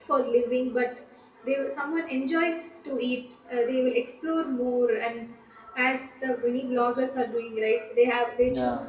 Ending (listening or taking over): listening